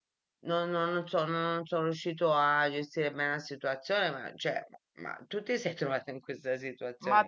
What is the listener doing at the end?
taking over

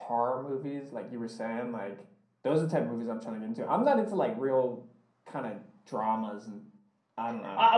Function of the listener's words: taking over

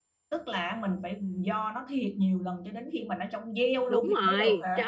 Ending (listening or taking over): taking over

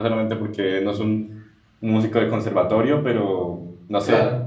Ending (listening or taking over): listening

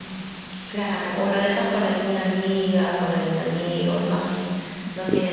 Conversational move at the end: listening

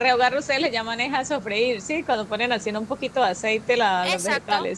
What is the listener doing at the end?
taking over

